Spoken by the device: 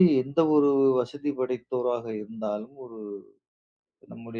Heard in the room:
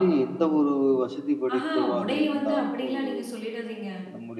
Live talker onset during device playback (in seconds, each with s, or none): 1.5 s